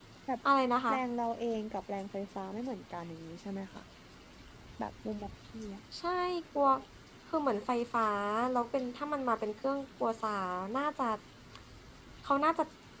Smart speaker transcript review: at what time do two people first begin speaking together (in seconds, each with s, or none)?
none